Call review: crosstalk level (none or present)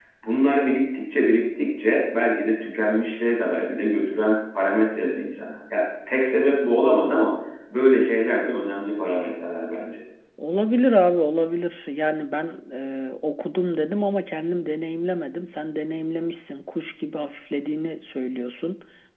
none